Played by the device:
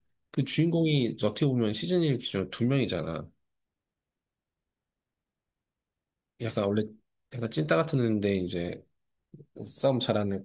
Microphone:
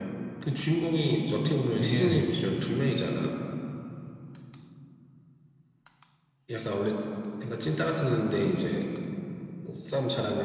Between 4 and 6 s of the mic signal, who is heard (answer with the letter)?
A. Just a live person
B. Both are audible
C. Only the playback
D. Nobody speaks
D